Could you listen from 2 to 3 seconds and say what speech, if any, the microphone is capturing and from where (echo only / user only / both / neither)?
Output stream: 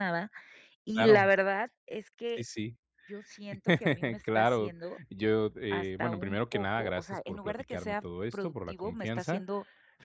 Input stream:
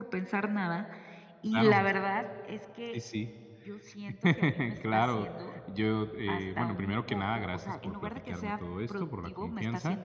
echo only